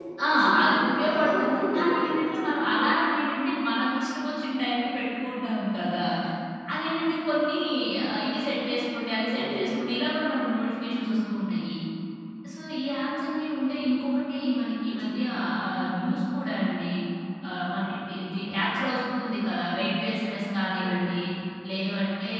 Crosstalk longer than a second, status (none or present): present